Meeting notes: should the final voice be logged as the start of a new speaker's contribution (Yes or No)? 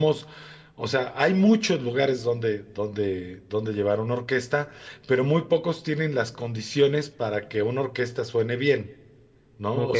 No